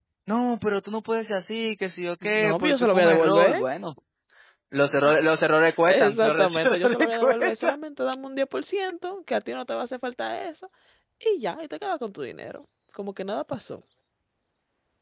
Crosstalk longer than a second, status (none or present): present